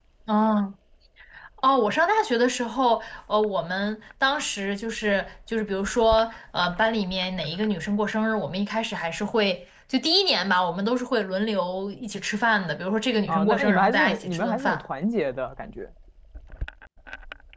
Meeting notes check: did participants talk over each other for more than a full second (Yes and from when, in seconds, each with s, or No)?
Yes, from 13.3 s